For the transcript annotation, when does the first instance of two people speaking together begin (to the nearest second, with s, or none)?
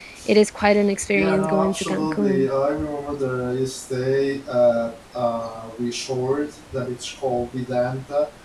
1 s